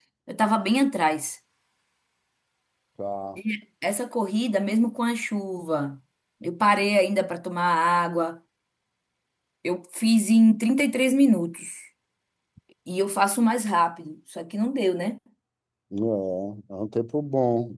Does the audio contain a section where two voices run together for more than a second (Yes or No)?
No